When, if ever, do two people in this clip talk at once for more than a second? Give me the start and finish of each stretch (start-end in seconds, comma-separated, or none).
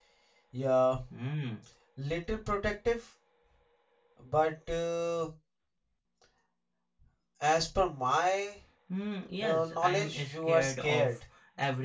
9.4-11.1